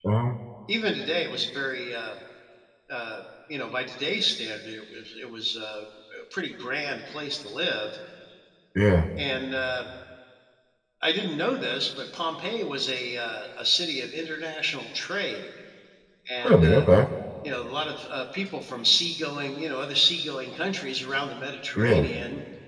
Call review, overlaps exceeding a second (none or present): none